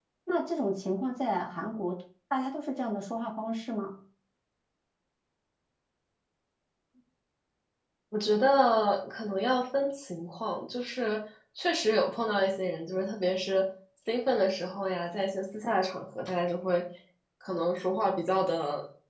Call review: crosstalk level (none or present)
none